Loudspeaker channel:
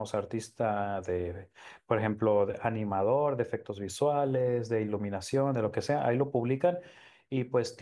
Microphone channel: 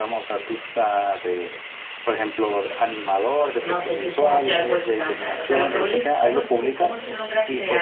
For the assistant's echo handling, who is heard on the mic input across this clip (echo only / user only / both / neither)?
both